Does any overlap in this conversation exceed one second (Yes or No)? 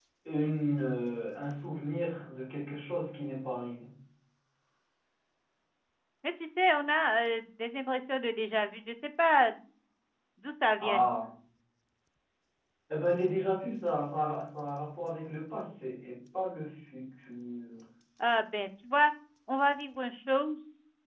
No